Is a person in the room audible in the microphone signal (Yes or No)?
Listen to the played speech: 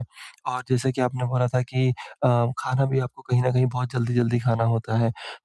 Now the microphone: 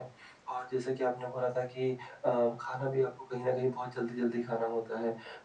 No